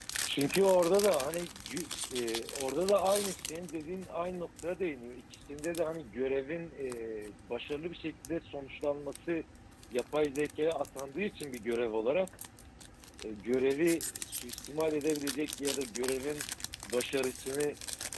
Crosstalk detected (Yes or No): No